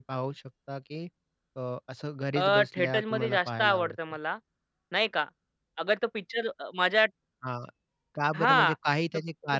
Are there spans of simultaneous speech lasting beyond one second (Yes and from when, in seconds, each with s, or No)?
Yes, from 2.4 s